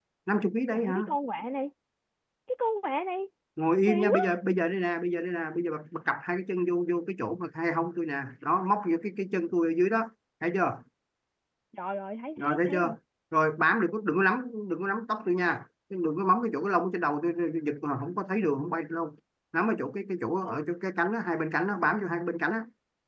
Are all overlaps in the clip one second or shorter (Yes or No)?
Yes